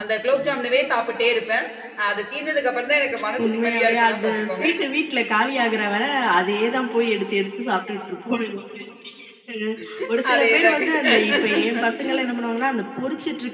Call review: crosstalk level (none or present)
present